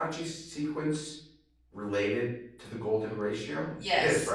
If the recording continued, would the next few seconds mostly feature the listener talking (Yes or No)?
Yes